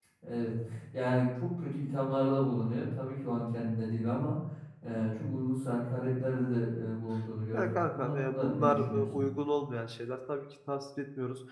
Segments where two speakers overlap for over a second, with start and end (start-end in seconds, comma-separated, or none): 7.5-9.1